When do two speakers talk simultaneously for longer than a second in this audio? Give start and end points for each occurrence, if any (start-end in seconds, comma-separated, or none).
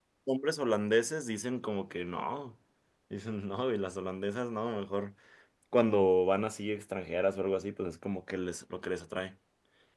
none